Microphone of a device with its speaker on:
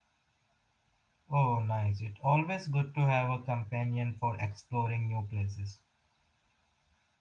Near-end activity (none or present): present